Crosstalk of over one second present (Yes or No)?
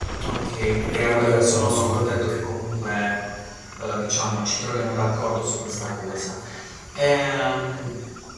Yes